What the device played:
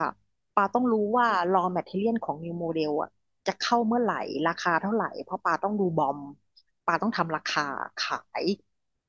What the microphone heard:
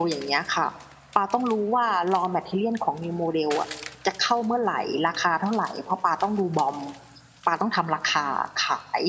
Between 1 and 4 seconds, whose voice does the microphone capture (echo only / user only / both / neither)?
echo only